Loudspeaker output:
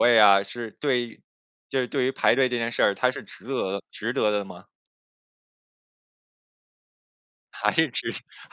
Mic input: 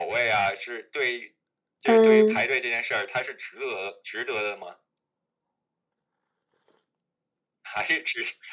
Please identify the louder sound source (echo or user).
user